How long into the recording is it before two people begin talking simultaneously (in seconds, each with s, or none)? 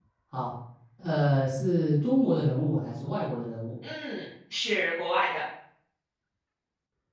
none